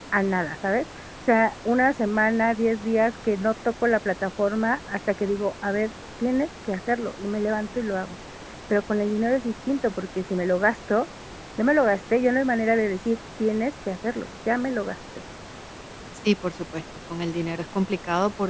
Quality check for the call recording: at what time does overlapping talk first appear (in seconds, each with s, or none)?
none